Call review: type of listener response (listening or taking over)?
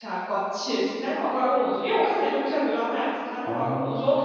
listening